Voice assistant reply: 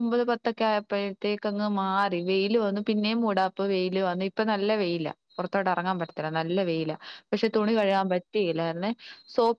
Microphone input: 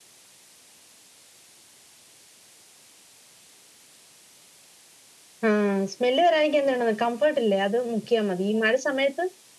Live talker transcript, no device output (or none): ആഹ് സ്മെല് വരായിരിക്കാൻ എന്തു വേണോ കംഫോർട്ട് ഇല്ലേ അത് മുക്കിയാൽ മതി ഈ മഴ സമയത്ത്